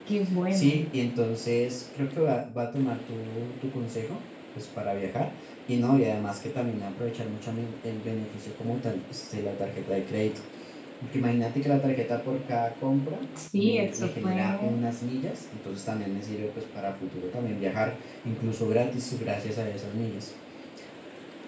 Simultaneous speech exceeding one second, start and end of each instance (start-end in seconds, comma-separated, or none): 13.6-14.8